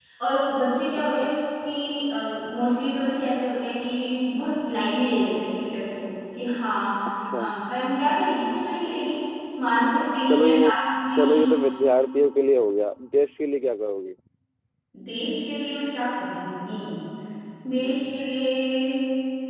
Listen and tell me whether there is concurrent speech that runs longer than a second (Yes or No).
No